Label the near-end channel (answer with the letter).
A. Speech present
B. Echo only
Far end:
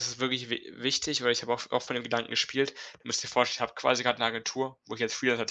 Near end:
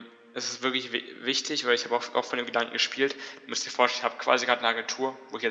B